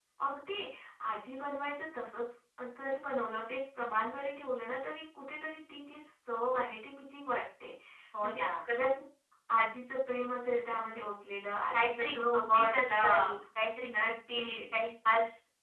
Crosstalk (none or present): present